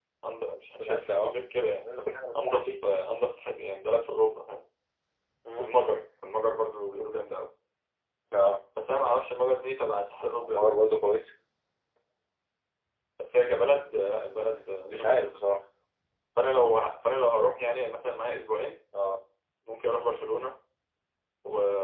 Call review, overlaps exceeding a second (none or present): none